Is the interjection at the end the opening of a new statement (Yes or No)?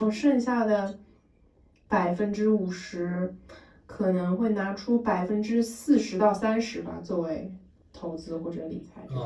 Yes